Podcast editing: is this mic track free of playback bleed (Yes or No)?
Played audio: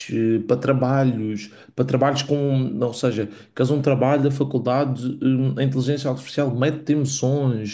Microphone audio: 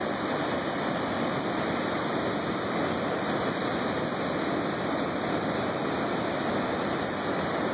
Yes